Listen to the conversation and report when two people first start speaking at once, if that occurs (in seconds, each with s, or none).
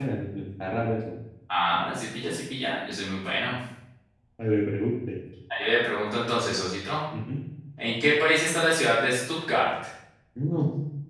none